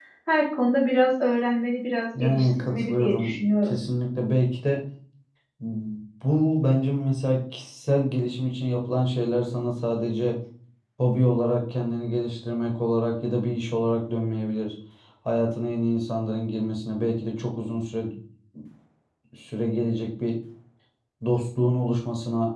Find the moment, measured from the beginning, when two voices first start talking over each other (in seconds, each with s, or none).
2.1 s